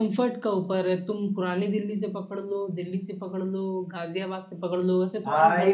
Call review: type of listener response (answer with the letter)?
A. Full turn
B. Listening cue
A